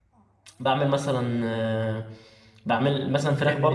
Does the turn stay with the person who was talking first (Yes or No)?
Yes